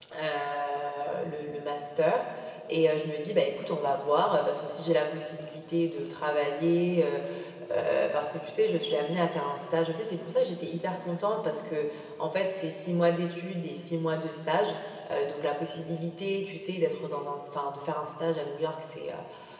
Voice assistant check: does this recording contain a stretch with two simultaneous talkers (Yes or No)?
No